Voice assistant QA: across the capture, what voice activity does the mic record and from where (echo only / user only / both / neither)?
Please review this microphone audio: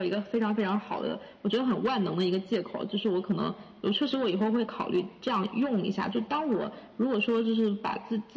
echo only